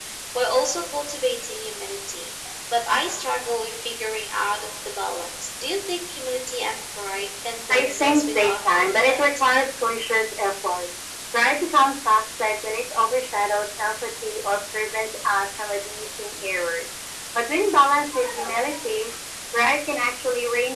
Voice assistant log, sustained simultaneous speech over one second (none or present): present